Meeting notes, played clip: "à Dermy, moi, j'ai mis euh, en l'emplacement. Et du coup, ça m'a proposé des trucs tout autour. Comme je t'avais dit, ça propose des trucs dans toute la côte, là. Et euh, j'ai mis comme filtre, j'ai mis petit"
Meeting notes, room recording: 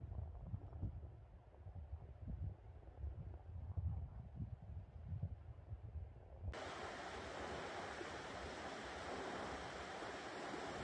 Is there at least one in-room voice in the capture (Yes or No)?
No